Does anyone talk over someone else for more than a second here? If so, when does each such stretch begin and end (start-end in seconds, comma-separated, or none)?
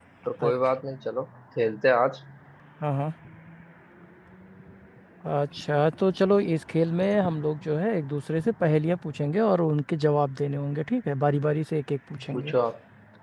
none